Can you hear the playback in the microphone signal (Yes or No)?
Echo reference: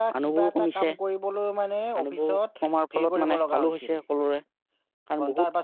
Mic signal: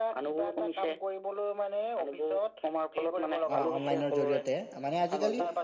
Yes